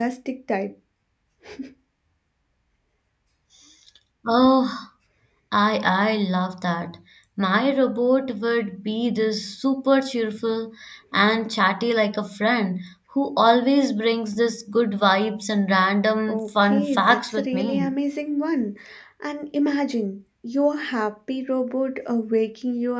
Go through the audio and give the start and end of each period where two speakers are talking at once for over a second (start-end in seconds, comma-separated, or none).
16.3-17.9